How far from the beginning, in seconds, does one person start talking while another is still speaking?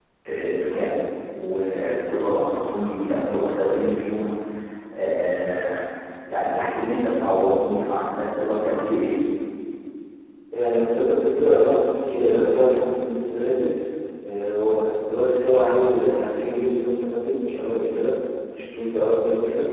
none

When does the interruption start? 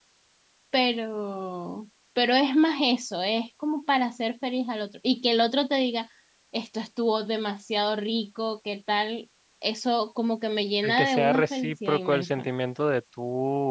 10.8 s

